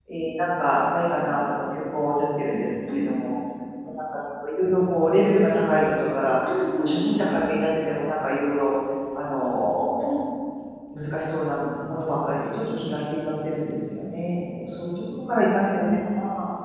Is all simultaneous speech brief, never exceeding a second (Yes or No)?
Yes